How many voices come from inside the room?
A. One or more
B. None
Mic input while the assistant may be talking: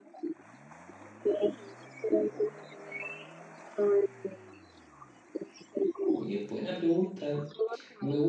A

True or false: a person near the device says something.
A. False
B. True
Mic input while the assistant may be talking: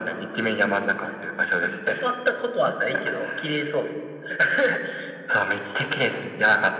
A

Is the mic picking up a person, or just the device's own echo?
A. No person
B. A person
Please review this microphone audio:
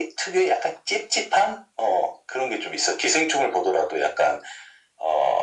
A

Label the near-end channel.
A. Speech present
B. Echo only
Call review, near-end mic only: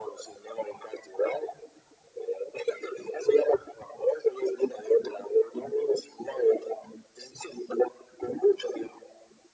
B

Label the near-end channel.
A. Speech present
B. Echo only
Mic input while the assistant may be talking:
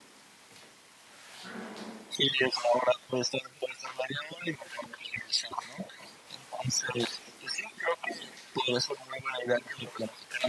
B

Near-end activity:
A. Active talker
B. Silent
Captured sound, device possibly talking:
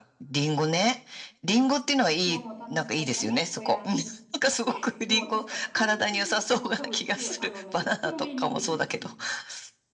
A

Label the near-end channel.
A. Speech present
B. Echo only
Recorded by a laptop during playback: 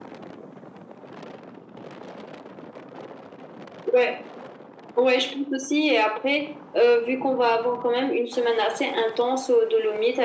B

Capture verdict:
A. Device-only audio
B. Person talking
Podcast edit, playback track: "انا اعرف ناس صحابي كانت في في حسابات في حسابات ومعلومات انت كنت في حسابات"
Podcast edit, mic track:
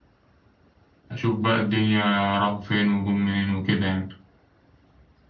B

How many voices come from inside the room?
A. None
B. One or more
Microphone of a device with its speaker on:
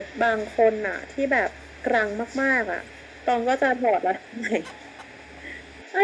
A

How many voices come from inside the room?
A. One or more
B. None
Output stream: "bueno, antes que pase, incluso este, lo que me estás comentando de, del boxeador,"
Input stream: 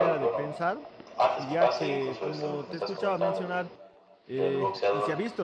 A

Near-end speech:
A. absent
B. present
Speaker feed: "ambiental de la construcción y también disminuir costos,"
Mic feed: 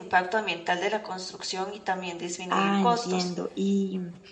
B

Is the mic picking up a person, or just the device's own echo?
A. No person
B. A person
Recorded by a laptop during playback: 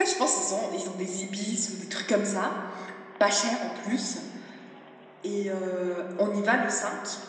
B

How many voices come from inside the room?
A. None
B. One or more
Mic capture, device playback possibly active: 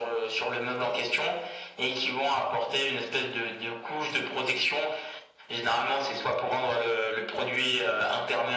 A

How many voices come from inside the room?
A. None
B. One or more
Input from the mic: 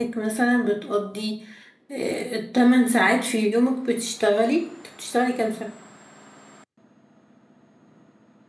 B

